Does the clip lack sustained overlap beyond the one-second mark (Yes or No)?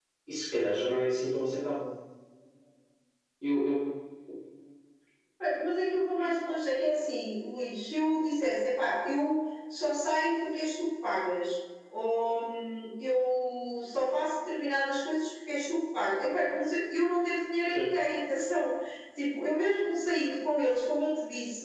Yes